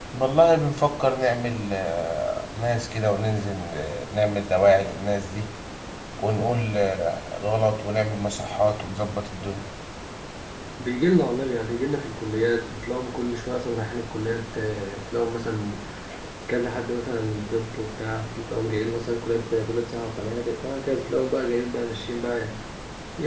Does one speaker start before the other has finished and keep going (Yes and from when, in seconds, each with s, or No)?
No